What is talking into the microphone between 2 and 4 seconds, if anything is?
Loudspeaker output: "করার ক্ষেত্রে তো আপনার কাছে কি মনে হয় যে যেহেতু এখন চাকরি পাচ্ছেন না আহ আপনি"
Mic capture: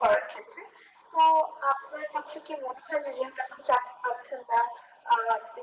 echo only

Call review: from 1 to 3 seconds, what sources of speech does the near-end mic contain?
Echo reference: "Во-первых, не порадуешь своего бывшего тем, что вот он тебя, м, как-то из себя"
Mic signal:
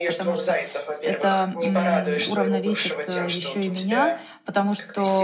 both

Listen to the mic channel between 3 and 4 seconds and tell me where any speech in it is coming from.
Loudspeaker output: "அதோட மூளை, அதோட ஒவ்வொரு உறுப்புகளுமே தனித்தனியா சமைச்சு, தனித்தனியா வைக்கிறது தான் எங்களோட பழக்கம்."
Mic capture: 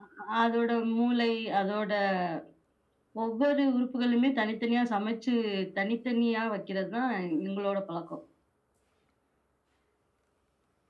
echo only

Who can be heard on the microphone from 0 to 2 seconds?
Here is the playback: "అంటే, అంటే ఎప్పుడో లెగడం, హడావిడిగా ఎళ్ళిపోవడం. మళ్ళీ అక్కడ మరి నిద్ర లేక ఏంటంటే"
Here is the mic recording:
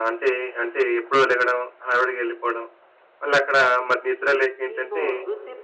echo only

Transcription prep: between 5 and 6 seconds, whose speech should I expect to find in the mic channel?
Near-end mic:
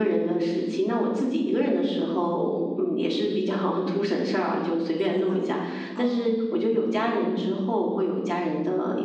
both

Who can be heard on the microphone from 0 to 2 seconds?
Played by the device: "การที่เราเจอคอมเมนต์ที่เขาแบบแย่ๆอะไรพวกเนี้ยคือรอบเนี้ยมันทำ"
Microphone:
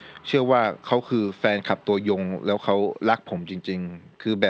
user only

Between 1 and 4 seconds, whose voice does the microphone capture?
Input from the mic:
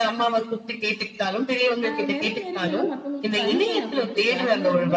both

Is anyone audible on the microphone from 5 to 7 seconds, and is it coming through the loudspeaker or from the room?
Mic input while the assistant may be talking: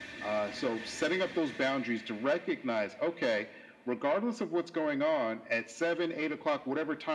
echo only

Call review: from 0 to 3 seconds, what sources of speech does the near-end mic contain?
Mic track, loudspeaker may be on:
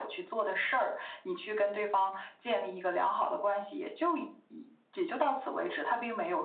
echo only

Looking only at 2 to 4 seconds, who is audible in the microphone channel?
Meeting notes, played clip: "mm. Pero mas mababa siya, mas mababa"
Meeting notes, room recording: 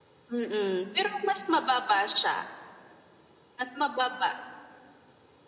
echo only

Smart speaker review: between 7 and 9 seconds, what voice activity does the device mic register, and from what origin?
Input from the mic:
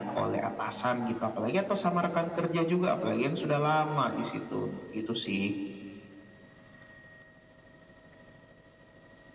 neither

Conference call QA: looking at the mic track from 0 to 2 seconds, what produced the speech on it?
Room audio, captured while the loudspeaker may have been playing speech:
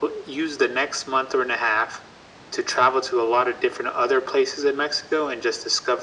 echo only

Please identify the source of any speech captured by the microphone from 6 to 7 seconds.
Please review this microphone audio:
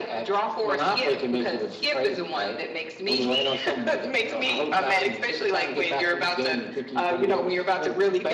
echo only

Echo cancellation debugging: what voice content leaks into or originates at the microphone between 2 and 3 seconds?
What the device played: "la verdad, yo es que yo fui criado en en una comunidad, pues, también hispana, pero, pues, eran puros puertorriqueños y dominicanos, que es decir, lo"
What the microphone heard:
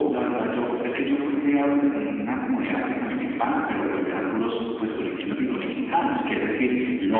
echo only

